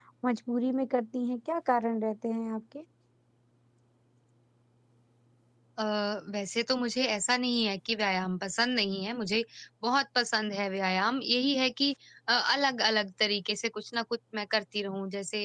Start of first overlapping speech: none

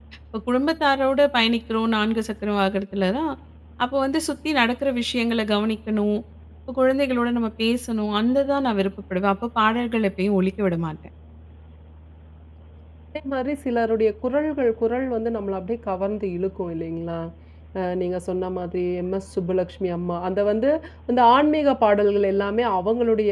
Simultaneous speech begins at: none

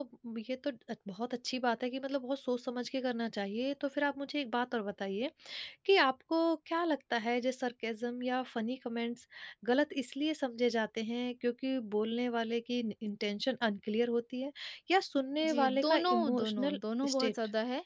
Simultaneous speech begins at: 15.5 s

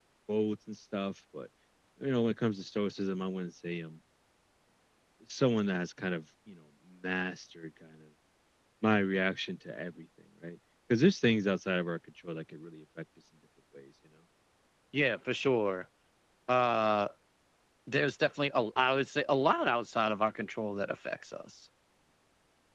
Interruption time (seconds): none

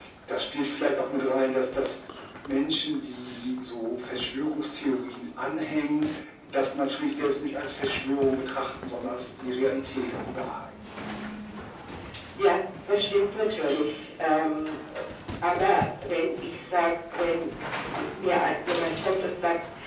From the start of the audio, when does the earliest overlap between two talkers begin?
none

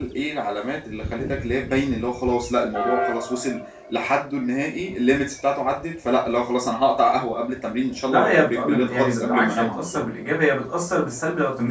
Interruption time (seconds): 8.1 s

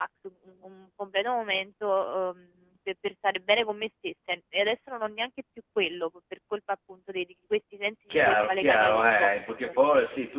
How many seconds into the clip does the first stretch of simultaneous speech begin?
8.1 s

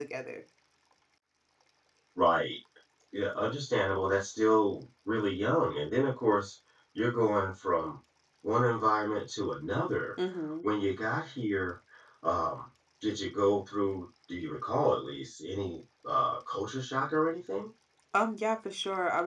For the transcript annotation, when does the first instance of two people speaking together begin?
none

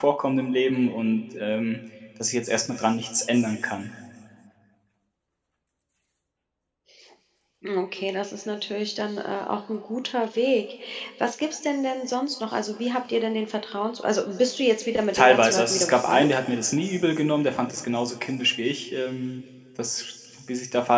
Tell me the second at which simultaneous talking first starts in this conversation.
15.1 s

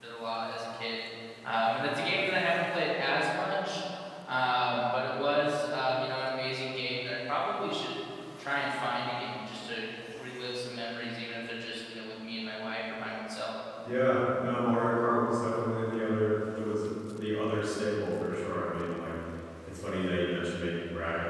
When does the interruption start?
none

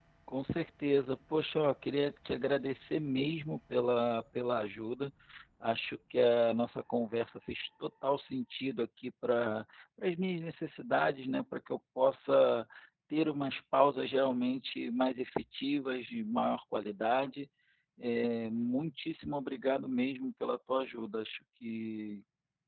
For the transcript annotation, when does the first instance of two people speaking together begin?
none

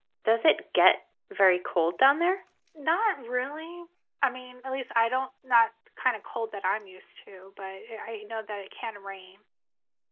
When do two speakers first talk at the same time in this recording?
none

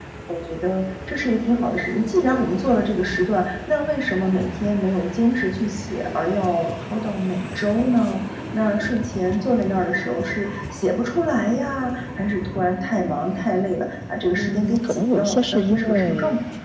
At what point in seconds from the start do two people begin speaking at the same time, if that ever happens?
14.3 s

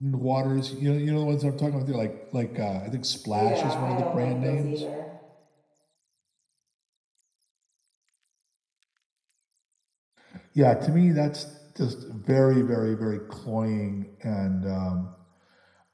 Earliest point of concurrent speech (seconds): 3.3 s

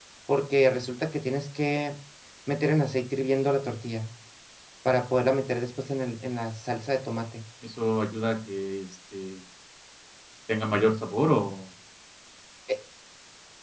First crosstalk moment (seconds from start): none

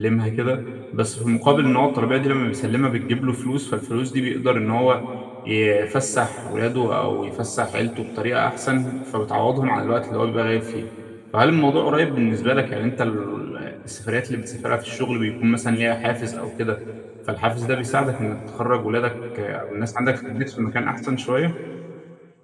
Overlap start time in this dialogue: none

